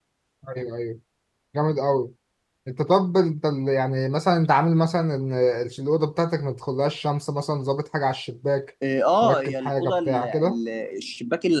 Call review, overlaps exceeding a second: present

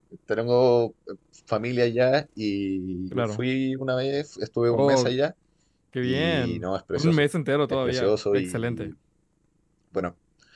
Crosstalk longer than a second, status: present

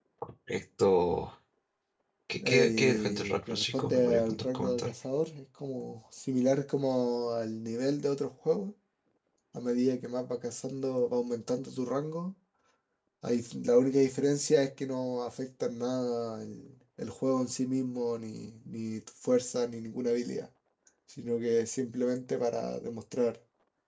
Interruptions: present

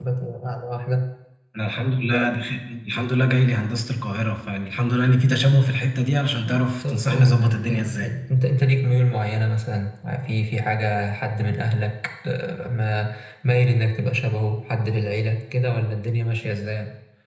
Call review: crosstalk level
present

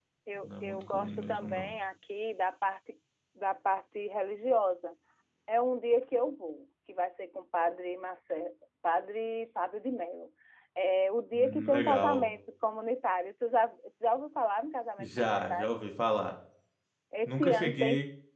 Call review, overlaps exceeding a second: present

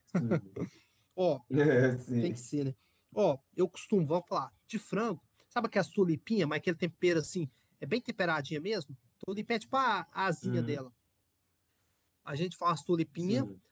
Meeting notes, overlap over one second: none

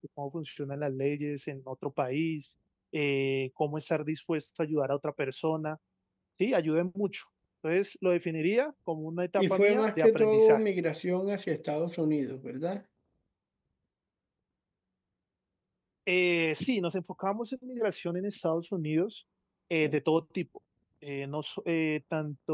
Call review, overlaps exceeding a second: present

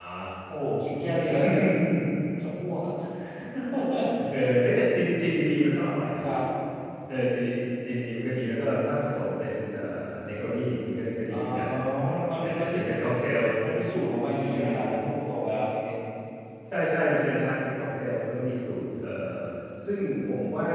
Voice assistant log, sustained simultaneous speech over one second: none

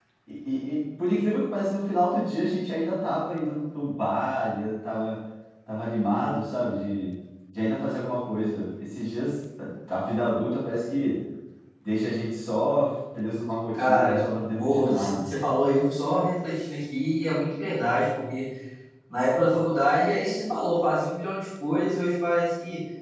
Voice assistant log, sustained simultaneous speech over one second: present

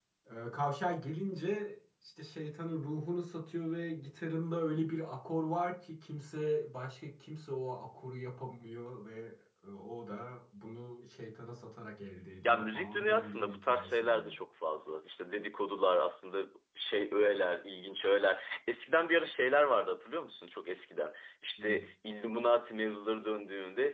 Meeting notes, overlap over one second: present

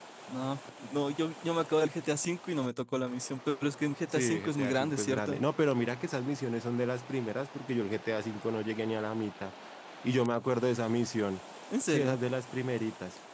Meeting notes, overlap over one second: present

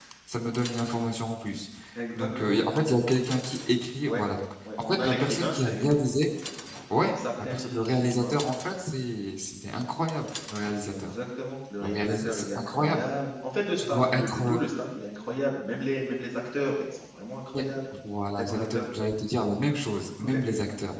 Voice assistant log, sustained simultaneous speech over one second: present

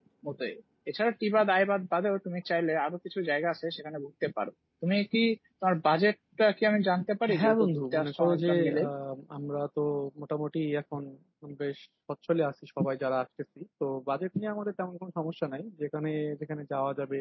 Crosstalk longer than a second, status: present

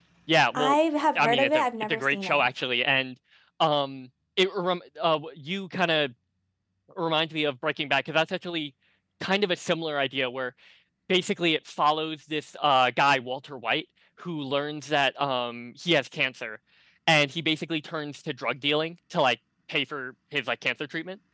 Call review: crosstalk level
present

